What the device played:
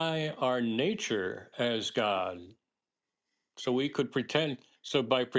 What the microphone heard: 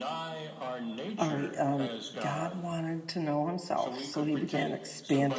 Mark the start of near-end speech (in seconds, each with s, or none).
1.2 s